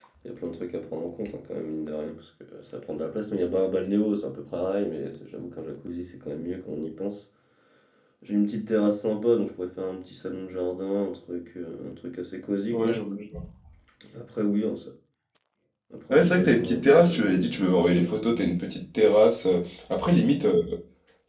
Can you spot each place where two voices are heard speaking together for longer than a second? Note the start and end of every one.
16.1-18.1

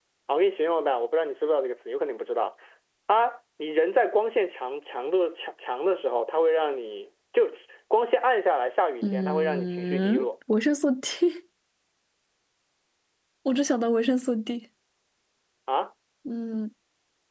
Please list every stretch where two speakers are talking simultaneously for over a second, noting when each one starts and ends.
9.0-10.3

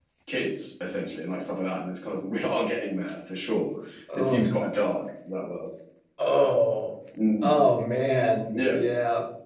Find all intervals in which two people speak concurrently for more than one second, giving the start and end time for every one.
none

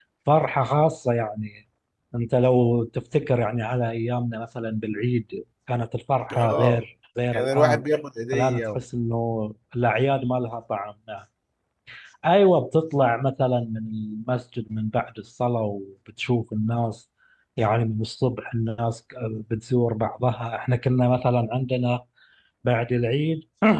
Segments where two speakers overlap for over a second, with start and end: none

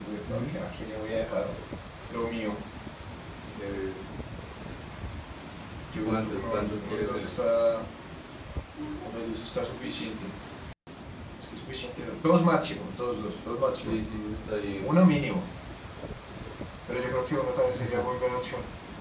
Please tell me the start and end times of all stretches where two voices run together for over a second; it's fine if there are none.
6.0-7.4

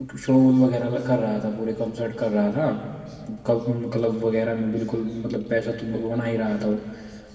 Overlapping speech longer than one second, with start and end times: none

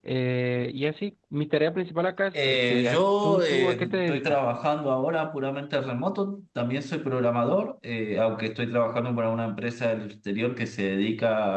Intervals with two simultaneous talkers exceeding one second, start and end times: 2.4-4.4

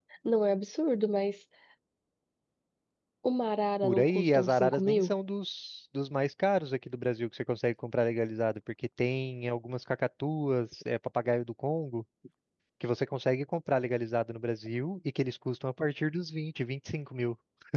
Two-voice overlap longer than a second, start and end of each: 3.8-5.1

